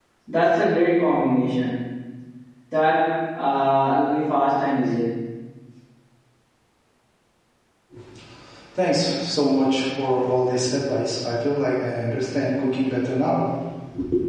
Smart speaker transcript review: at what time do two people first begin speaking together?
none

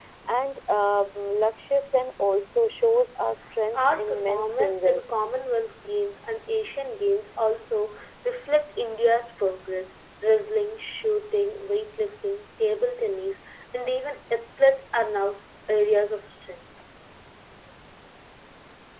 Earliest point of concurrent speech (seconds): 4 s

